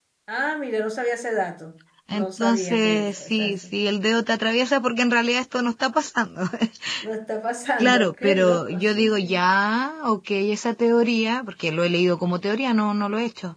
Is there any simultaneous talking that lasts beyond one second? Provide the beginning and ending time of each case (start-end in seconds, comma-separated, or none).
2.1-3.5, 7.8-9.3